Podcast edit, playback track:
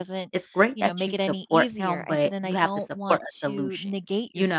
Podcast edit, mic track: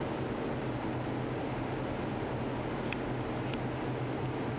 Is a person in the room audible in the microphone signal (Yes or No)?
No